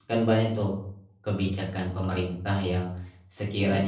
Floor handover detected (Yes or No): No